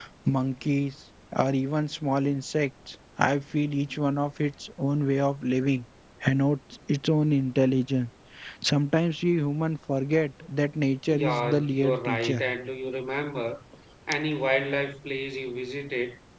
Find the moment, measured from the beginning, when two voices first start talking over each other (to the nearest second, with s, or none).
11 s